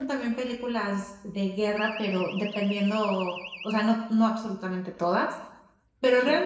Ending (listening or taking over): listening